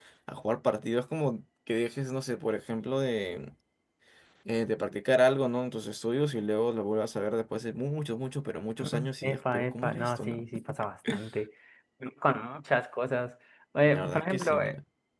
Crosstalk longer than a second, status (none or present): present